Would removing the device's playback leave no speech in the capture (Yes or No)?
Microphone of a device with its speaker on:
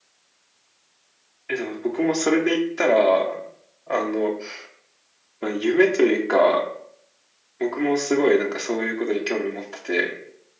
Yes